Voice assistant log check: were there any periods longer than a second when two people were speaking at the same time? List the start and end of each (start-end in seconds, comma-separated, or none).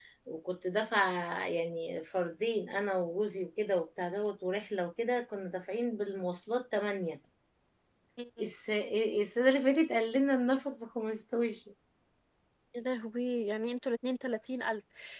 none